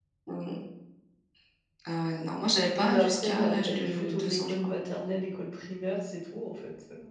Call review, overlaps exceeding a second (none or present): present